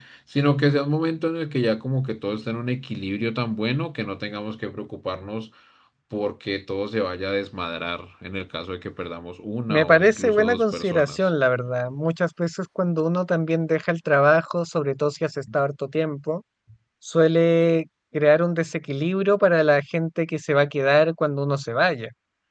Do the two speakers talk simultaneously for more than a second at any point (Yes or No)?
Yes